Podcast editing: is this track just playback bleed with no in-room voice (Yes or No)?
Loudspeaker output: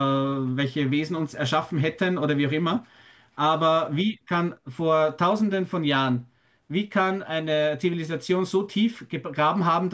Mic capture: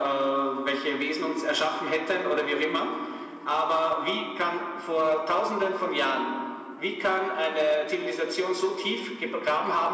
Yes